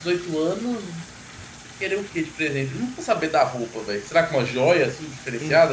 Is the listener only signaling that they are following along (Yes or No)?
No